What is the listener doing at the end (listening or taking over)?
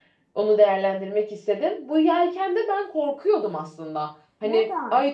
listening